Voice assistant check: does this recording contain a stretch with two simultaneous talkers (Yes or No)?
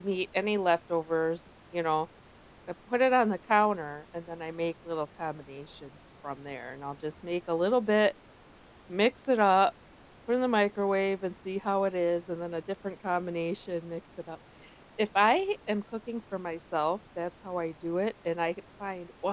No